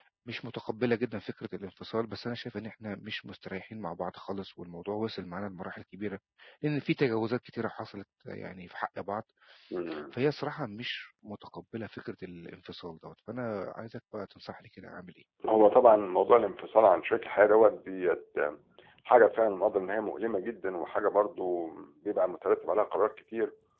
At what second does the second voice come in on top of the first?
none

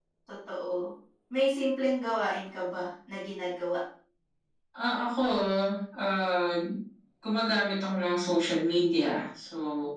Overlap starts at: none

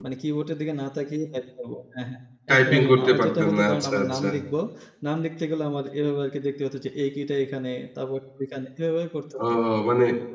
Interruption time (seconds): 2.5 s

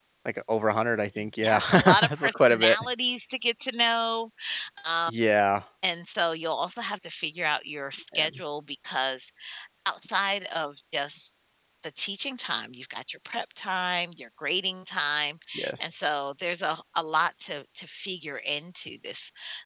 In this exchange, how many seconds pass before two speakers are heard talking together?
1.4 s

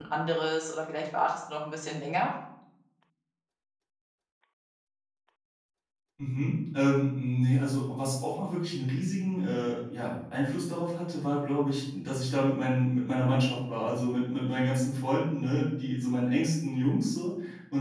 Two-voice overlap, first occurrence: none

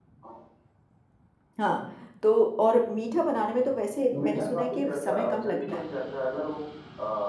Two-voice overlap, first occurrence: 4.1 s

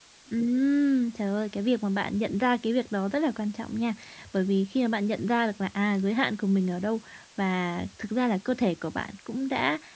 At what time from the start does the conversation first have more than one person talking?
none

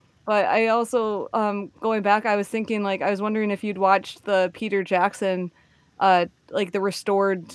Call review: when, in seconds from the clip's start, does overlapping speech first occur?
none

